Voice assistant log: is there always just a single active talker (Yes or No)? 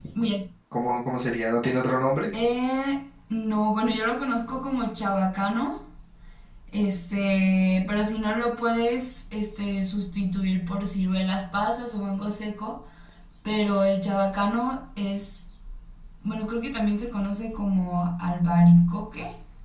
Yes